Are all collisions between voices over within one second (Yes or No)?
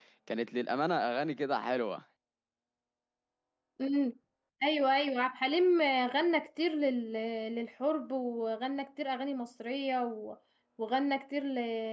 Yes